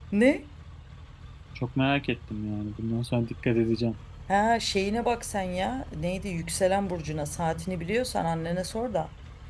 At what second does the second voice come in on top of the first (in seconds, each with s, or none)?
none